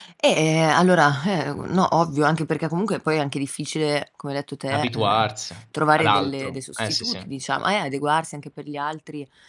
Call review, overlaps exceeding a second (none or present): present